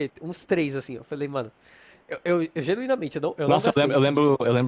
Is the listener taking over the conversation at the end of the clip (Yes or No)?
Yes